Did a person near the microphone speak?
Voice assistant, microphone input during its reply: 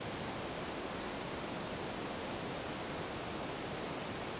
No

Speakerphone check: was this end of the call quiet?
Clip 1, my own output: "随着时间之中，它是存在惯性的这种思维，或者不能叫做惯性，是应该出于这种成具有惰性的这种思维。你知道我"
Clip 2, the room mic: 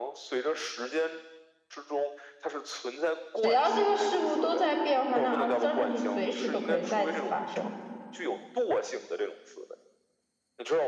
No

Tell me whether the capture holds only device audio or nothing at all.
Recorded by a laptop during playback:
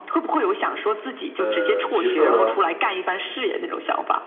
No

